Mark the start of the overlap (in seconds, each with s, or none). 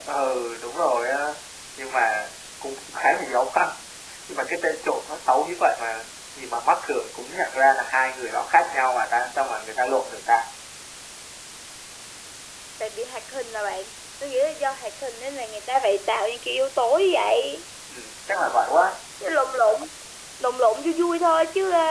none